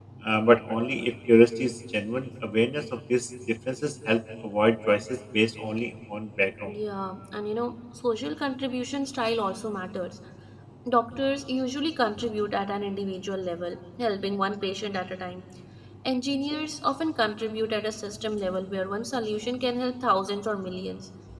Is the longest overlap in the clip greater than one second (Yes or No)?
No